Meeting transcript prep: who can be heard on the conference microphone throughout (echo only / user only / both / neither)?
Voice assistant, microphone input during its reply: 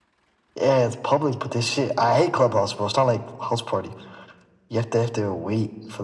echo only